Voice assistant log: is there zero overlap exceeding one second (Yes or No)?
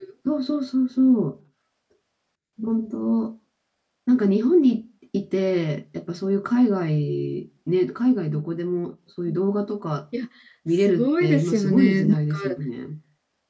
No